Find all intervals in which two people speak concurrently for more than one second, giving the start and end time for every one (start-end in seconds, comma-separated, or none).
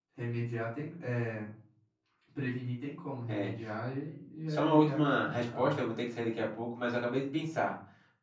4.5-5.8